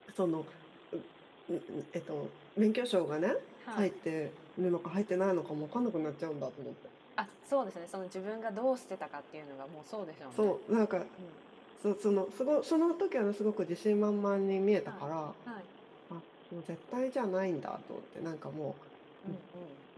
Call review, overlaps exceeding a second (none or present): none